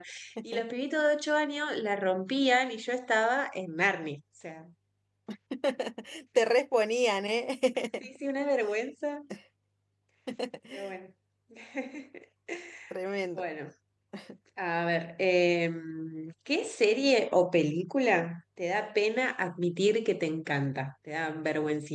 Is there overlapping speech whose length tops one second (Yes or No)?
No